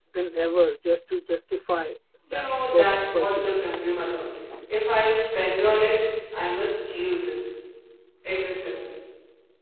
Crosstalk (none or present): present